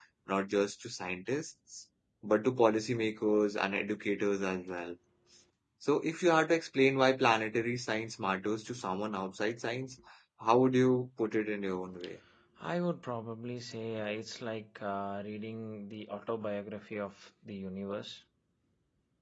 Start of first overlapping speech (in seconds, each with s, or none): none